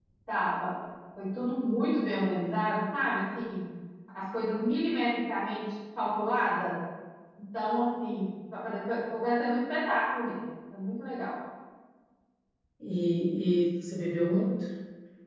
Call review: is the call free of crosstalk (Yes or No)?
Yes